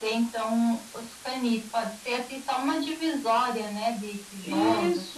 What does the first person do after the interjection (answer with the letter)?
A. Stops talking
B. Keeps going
A